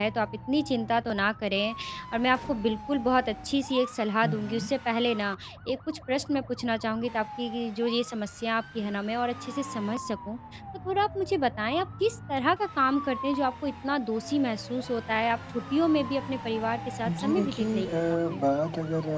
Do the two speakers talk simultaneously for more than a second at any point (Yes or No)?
Yes